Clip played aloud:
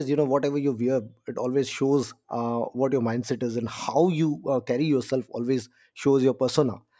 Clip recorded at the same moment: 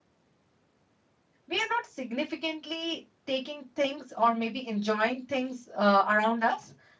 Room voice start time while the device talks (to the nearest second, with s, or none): 1 s